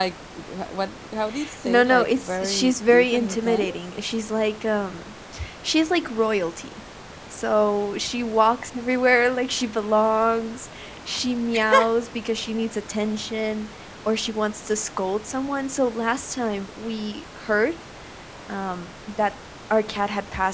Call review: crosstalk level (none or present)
present